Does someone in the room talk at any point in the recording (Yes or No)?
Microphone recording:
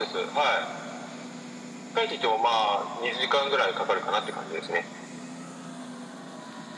No